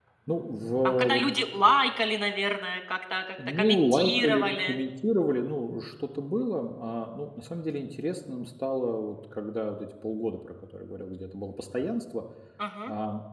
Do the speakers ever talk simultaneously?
Yes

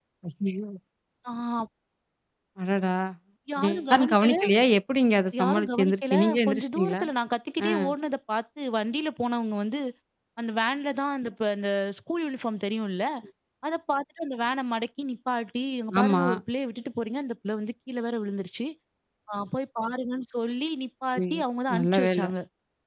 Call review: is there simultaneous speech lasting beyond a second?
Yes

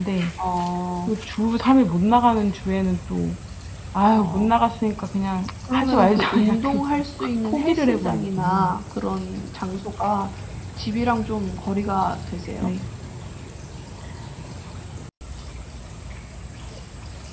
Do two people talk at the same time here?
Yes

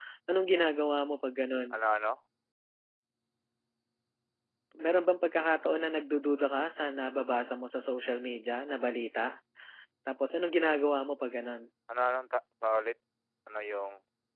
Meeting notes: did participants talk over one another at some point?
No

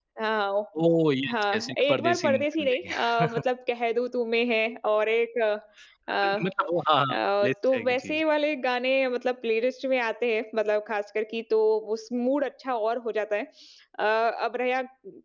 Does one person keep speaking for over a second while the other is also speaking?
Yes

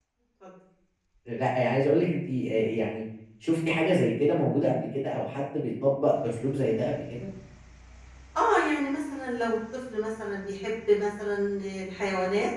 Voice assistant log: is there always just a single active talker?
Yes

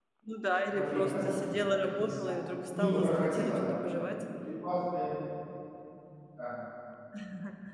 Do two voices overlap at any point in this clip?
Yes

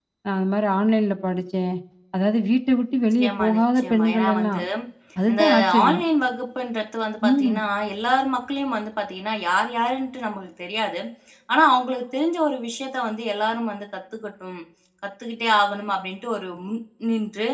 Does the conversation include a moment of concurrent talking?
Yes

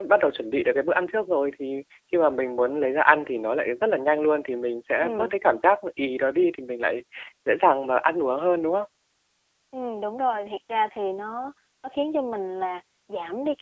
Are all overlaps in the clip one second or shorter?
Yes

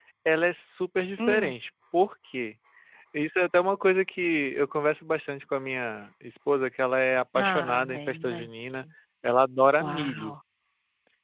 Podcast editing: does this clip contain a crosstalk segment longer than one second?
Yes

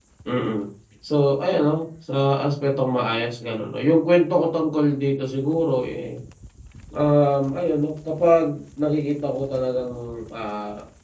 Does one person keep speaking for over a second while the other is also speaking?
No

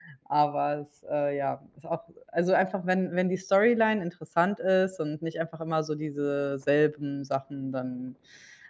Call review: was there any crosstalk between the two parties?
No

